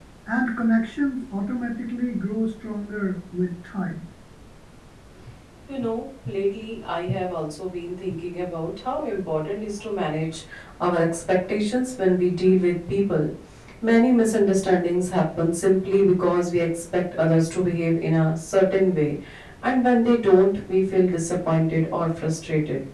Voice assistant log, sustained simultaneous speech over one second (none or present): none